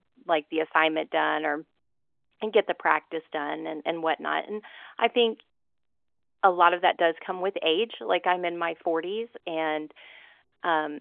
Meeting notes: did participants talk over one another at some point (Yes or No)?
No